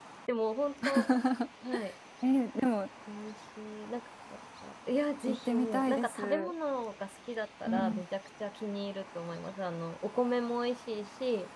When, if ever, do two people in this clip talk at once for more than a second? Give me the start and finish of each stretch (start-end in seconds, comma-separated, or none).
5.3-6.5